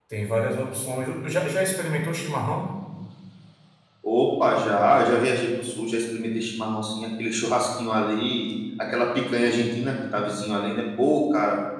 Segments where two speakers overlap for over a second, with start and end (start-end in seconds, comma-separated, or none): none